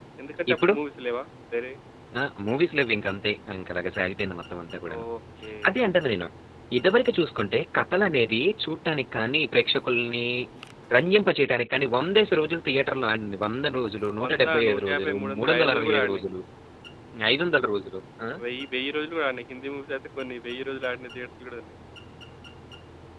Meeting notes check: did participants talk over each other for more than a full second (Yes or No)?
Yes